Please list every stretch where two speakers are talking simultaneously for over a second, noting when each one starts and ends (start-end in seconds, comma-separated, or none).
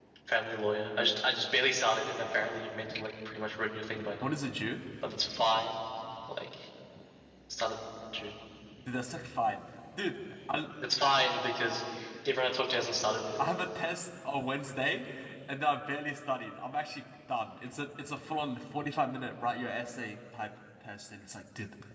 none